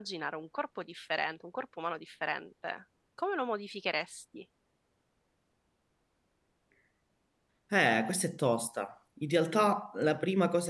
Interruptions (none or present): none